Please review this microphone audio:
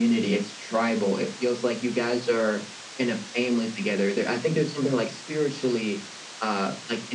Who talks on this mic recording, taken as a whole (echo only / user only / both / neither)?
echo only